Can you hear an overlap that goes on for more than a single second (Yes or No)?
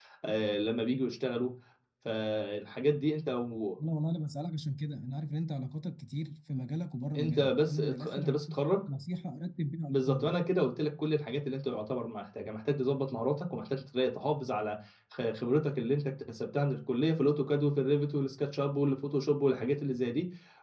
Yes